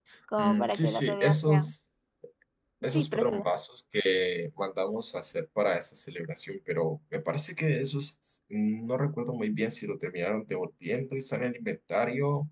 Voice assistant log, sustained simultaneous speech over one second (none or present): present